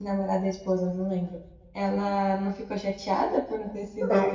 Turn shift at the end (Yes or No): Yes